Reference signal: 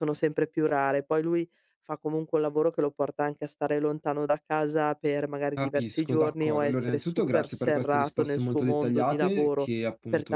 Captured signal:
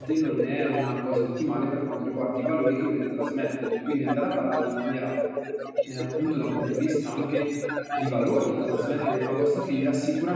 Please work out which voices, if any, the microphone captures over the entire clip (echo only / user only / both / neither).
both